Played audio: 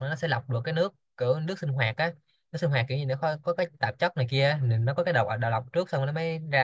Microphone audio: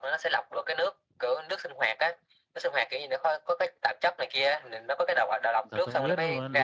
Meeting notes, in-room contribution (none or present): present